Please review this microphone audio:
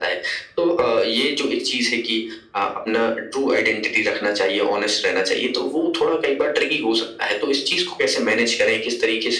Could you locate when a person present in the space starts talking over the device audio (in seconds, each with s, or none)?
none